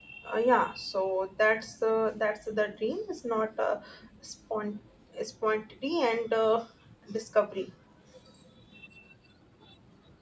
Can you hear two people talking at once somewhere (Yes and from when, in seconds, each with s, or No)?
No